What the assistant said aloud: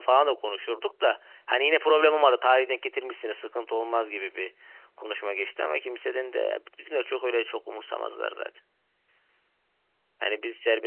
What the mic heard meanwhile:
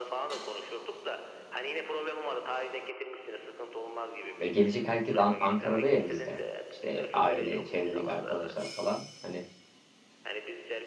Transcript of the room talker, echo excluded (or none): ya gelecek herkes An- Ankara'da ya bizde. İşte aile, çevredeki arkadaşlar falan. Hani